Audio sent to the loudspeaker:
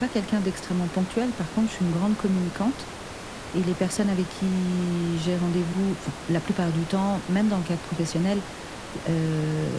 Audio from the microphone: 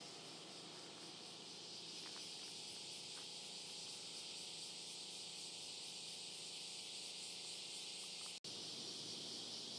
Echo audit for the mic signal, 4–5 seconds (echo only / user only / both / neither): neither